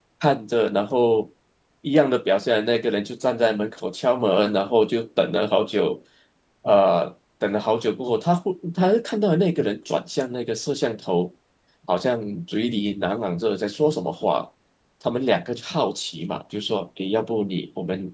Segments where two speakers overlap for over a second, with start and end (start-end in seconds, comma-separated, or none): none